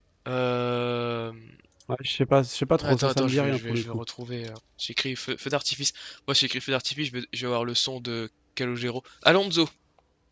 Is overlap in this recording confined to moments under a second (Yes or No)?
No